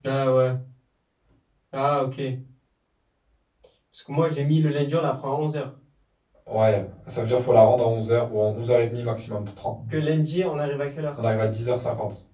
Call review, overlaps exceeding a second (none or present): none